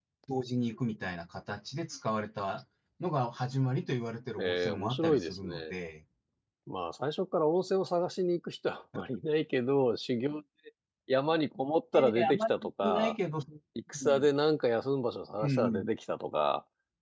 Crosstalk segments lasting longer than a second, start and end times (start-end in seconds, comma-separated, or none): 4.4-5.7, 11.9-13.2